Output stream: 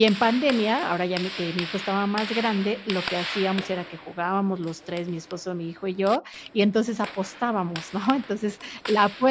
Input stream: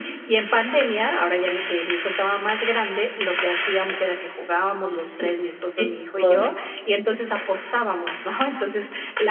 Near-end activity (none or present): present